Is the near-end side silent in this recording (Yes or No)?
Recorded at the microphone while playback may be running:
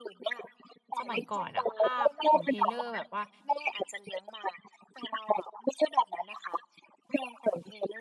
No